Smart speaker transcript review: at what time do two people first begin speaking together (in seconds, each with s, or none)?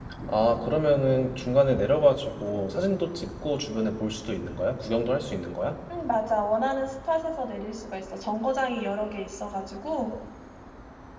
none